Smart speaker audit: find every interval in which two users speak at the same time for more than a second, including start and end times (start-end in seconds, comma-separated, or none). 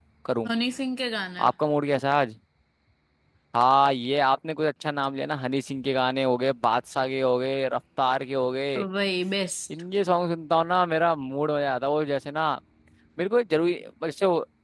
none